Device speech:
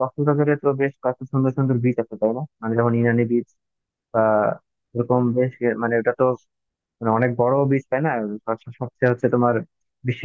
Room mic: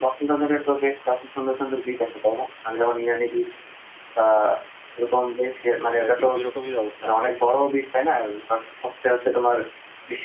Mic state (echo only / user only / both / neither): both